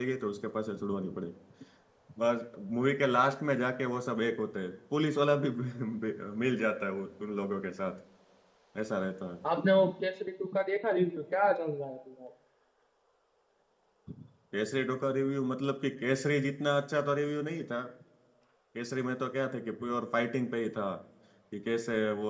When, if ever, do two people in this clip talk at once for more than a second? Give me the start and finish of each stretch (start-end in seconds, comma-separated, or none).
none